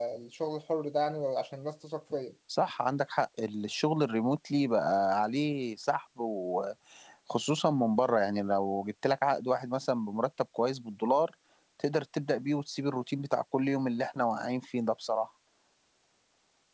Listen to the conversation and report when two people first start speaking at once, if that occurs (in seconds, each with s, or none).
none